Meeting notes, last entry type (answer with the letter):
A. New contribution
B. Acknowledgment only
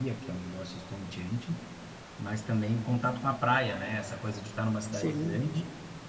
B